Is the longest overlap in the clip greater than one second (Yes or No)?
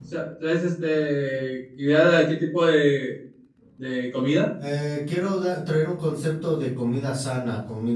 No